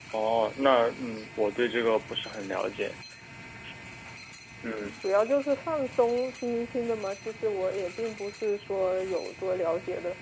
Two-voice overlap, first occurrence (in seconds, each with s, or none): none